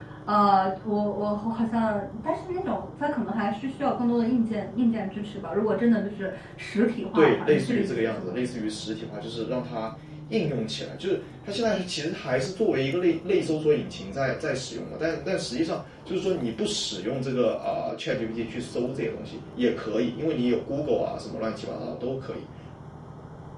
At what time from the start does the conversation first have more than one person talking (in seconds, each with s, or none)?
7.2 s